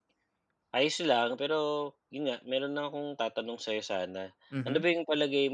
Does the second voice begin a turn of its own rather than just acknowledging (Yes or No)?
No